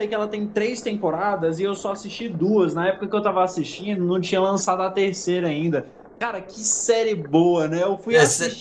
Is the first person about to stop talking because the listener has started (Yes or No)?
No